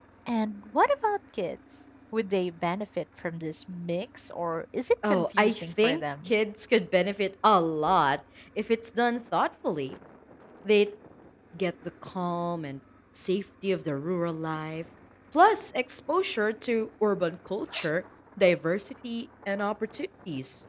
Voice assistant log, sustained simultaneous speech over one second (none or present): present